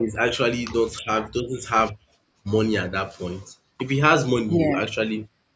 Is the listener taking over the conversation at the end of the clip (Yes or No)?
No